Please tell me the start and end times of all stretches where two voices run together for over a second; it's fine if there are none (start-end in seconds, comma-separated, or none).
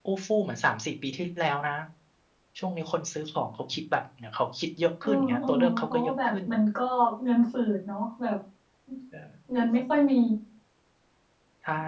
5.0-6.3